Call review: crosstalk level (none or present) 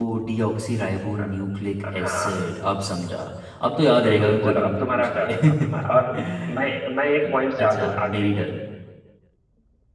present